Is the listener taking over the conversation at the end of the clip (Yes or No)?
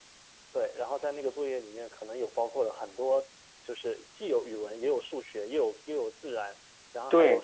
No